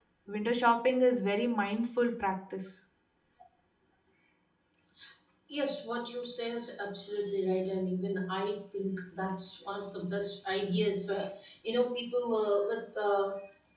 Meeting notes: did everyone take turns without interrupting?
Yes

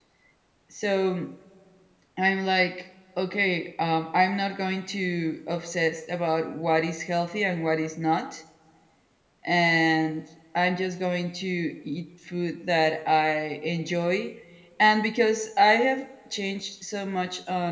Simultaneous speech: No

